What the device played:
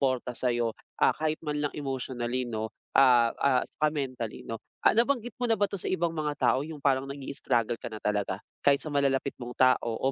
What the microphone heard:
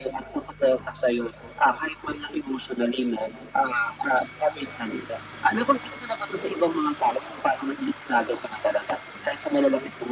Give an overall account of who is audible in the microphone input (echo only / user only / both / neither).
echo only